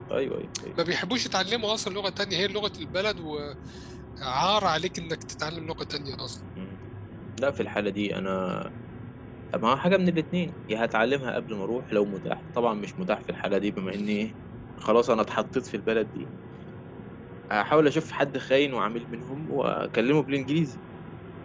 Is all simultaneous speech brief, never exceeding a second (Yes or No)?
Yes